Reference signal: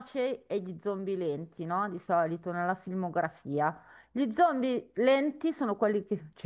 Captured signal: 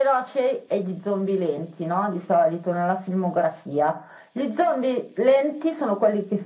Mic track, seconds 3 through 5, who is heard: echo only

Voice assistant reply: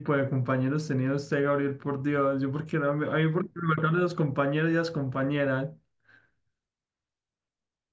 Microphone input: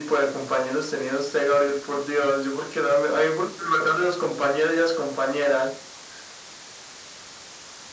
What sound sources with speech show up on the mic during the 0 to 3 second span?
echo only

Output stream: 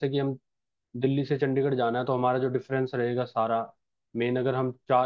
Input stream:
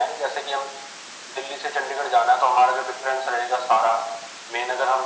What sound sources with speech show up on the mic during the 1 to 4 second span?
echo only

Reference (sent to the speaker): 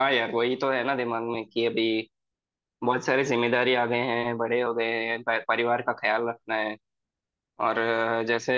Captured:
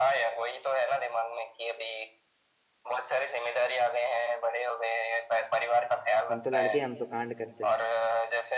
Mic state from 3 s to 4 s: echo only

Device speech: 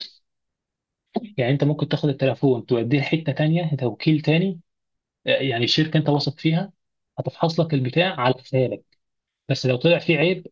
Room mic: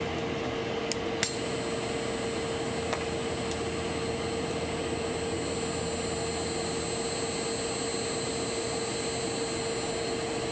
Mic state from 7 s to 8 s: neither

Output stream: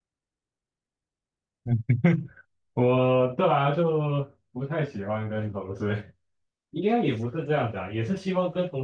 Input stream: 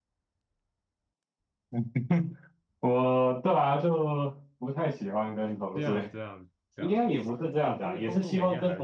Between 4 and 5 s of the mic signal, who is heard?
echo only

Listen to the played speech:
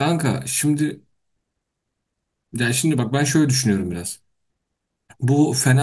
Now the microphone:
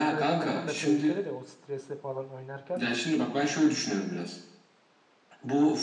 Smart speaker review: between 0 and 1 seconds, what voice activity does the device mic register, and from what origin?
both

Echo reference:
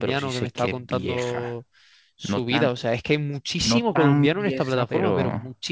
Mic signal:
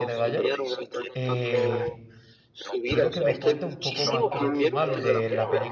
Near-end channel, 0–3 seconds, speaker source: both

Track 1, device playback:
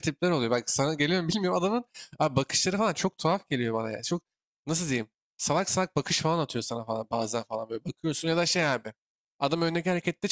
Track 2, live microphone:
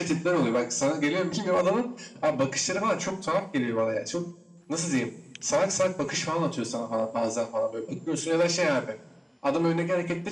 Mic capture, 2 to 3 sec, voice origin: echo only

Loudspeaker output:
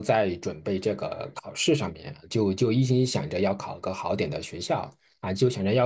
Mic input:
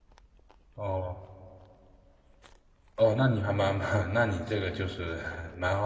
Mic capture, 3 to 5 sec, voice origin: user only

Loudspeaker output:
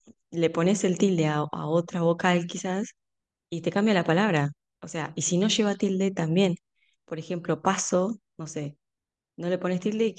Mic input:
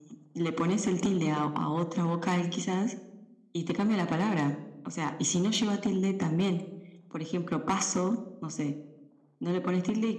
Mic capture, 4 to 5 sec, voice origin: echo only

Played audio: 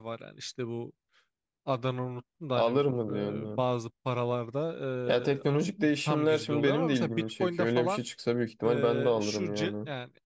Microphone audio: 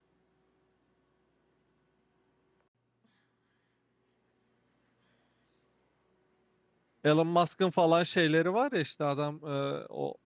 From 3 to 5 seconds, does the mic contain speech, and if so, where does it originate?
neither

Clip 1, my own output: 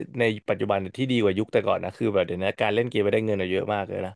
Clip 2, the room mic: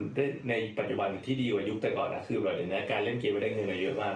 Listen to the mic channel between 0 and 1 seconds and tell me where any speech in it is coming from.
echo only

